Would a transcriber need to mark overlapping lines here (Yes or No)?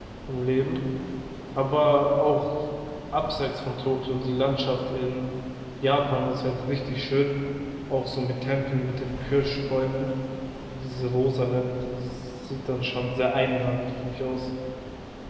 No